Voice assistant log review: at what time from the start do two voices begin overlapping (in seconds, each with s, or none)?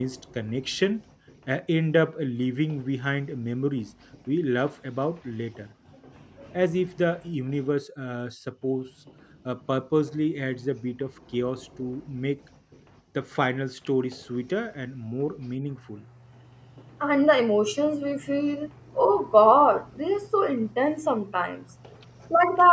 none